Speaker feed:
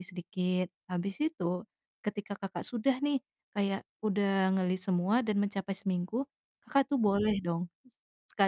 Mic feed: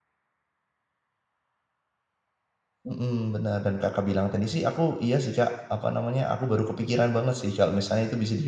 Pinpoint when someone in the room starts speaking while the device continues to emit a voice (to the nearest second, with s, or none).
3 s